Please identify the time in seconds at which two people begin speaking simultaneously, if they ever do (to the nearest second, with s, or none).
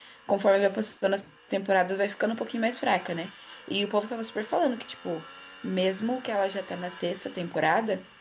none